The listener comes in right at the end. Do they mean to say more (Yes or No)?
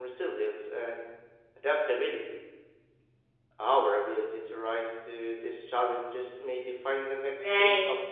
Yes